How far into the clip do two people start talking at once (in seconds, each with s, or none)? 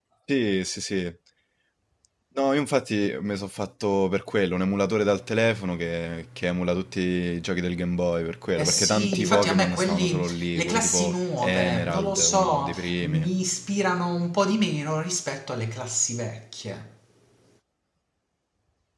8.6 s